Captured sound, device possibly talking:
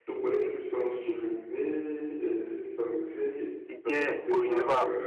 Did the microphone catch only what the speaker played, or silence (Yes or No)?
No